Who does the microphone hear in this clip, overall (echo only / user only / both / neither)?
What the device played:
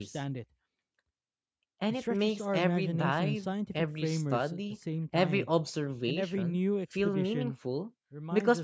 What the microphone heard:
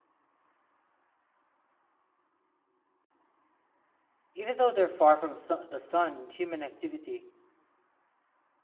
user only